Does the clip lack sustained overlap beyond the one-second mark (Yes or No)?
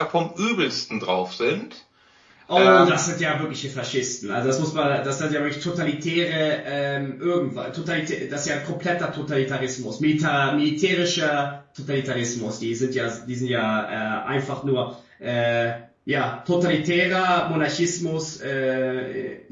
Yes